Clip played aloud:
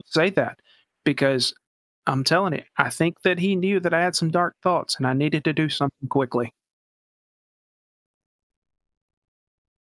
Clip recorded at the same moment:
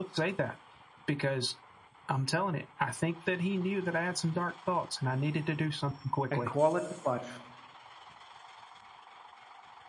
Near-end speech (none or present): present